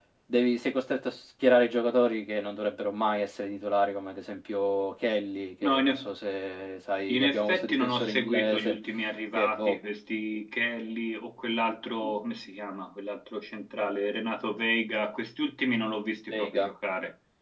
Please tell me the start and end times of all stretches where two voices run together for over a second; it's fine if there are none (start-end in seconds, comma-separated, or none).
7.1-8.8